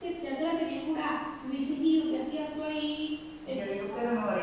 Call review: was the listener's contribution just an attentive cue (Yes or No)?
No